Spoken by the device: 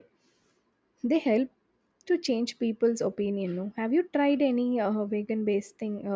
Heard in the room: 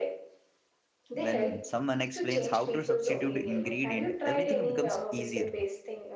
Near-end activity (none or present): present